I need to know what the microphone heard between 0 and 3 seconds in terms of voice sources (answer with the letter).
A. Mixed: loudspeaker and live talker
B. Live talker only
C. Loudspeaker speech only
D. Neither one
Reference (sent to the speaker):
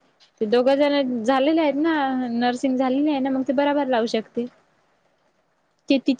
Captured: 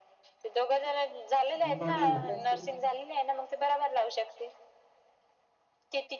A